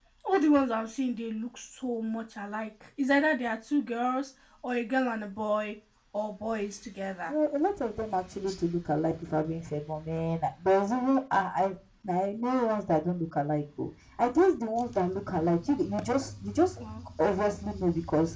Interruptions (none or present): none